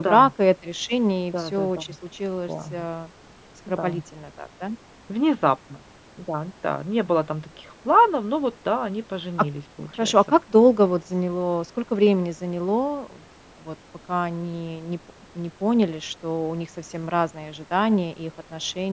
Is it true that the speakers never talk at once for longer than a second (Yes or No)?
Yes